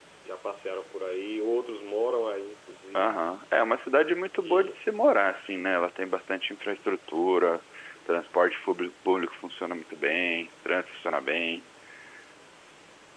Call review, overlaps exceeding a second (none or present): none